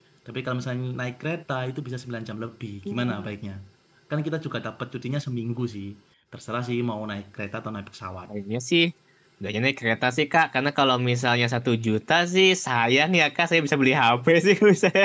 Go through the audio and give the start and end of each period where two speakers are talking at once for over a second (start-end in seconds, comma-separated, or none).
none